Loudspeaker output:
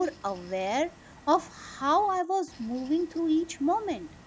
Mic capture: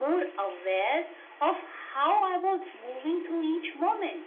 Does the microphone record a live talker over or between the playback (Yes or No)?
No